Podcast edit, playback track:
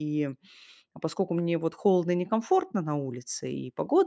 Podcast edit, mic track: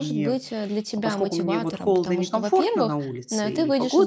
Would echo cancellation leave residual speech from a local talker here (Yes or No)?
Yes